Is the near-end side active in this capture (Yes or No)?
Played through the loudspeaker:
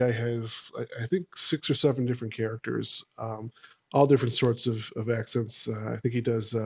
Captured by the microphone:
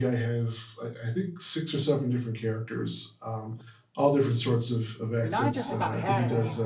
Yes